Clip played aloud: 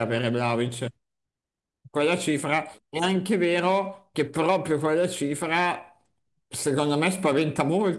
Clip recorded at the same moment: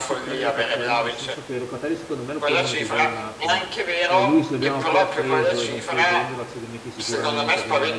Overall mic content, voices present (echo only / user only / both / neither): both